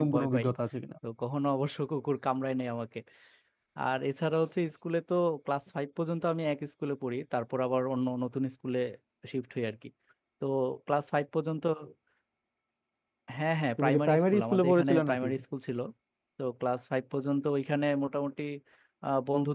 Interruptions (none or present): present